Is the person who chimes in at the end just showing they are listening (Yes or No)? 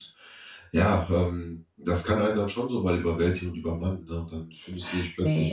Yes